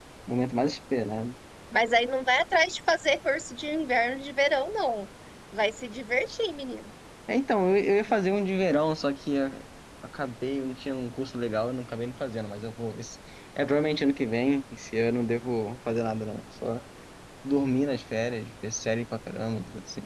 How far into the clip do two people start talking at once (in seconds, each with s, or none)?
none